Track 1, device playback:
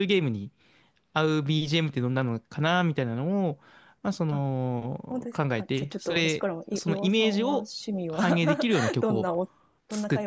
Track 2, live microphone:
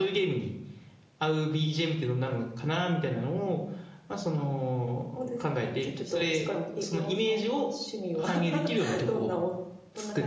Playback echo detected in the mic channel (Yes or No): Yes